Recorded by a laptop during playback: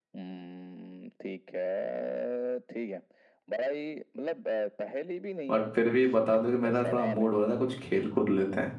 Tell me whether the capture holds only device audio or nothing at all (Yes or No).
No